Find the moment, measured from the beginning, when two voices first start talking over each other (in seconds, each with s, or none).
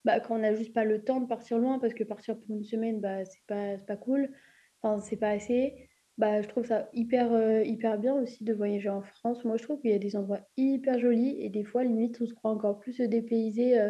none